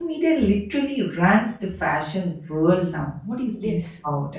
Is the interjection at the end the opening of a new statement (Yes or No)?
Yes